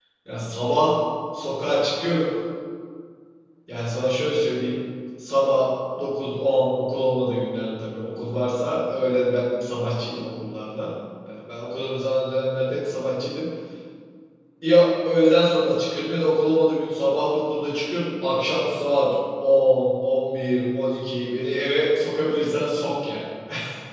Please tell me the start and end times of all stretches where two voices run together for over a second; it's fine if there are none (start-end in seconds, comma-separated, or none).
none